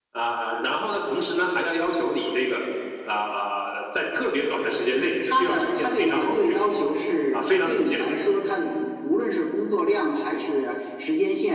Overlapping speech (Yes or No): Yes